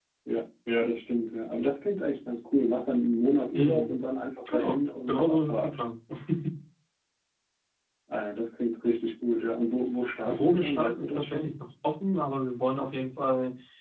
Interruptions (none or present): present